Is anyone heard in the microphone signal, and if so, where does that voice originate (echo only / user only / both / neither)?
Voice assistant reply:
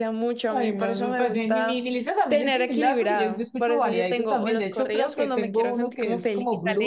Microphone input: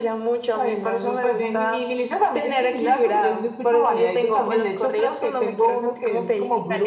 echo only